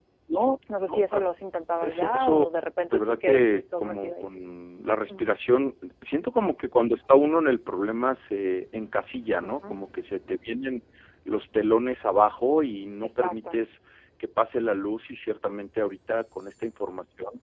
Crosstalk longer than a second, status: present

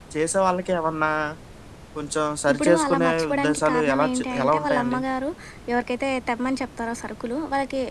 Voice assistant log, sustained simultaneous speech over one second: present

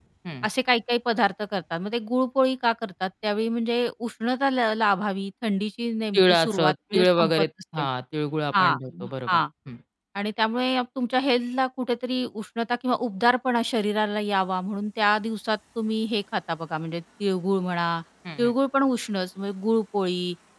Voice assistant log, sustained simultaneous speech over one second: present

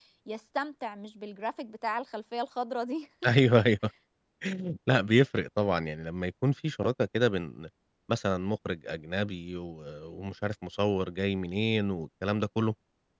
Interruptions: none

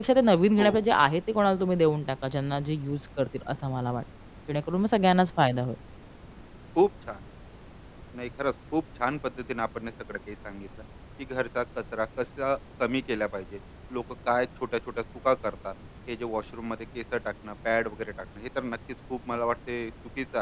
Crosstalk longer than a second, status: none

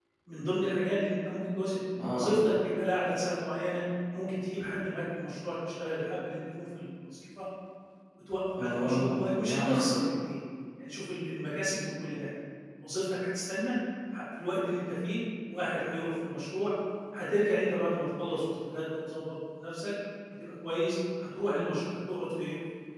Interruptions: present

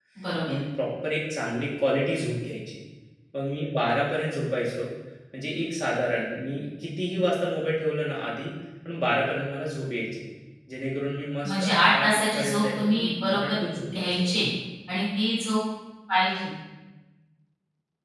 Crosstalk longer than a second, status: present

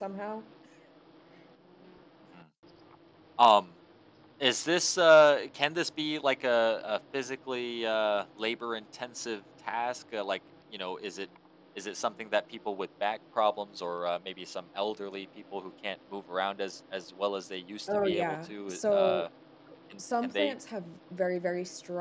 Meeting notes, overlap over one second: present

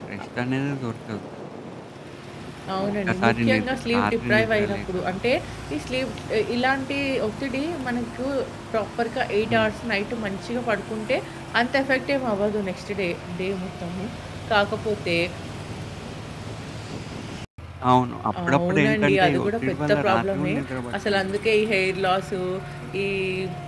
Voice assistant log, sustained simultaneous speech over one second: present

